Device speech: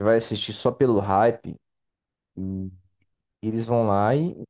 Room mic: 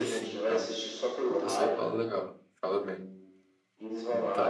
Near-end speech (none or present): present